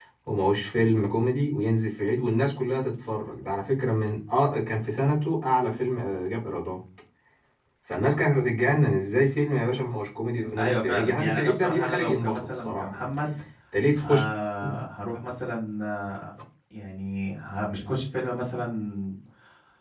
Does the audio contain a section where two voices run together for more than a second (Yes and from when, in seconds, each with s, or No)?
Yes, from 10.6 s